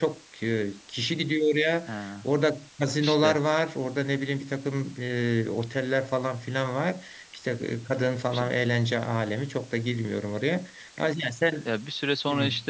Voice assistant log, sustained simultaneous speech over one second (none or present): none